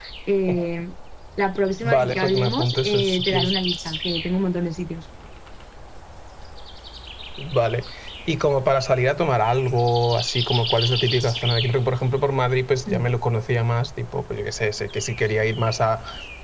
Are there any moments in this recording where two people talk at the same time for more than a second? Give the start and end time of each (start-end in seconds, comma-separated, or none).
1.8-3.5